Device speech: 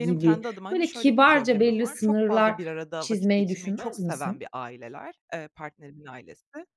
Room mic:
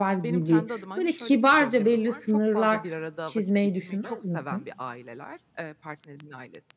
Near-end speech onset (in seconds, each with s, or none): none